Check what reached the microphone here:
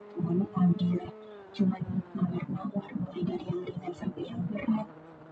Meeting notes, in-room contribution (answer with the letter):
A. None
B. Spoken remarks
A